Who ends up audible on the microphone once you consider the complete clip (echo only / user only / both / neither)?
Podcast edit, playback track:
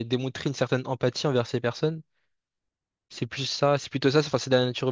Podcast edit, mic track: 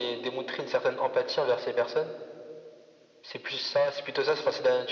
echo only